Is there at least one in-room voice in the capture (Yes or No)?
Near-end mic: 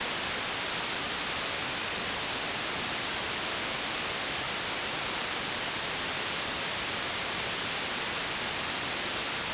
No